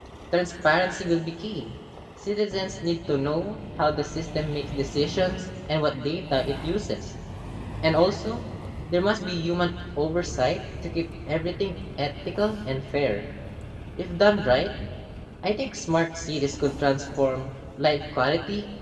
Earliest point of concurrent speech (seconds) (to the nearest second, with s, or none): none